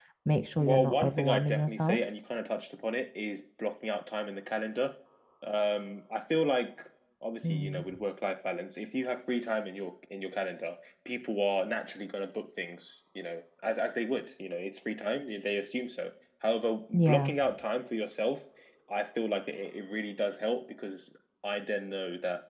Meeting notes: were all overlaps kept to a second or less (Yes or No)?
No